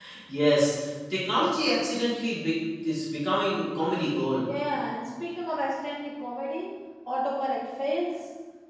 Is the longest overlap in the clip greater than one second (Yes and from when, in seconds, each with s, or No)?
No